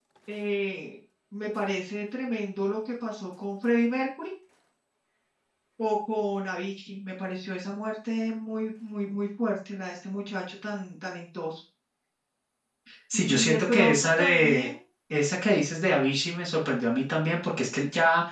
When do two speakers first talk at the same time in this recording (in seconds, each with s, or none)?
13.1 s